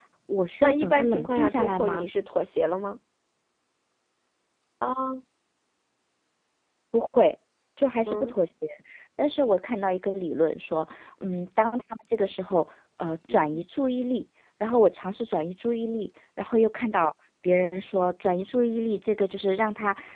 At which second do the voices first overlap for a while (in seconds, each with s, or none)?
0.6 s